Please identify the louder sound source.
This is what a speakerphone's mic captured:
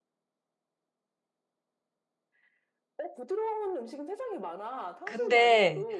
user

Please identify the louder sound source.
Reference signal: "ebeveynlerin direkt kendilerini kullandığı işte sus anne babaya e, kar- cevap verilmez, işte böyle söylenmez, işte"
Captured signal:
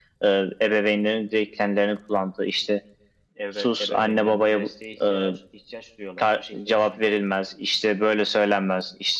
echo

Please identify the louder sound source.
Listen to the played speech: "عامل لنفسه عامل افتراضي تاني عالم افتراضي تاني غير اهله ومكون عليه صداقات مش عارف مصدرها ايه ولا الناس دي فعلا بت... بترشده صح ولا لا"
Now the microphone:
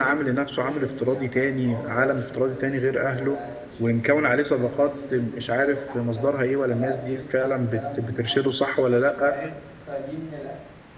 echo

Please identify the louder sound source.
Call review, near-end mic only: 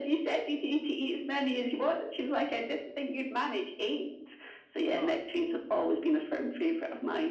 echo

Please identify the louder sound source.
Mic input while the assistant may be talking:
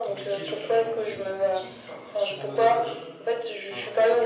echo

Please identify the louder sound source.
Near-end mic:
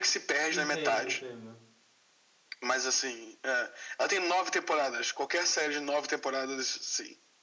echo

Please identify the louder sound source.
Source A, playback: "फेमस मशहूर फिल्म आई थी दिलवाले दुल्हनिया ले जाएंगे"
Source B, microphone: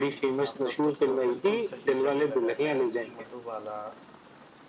echo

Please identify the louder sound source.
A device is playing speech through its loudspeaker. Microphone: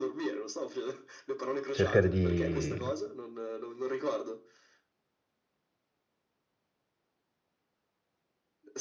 user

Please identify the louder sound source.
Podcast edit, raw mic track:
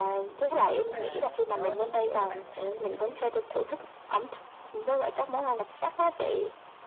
echo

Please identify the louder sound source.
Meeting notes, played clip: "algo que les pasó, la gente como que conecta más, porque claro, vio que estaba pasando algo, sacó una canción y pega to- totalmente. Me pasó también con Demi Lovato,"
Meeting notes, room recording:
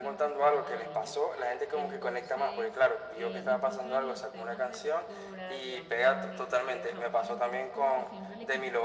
echo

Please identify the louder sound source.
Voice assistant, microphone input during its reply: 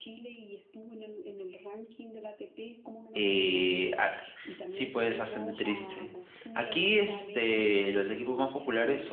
user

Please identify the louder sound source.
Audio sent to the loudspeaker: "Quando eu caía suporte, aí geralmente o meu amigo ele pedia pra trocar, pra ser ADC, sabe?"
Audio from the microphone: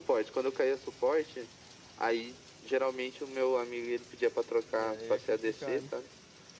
echo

